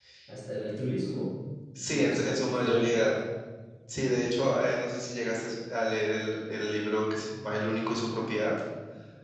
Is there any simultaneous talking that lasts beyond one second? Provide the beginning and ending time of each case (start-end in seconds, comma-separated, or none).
1.9-3.1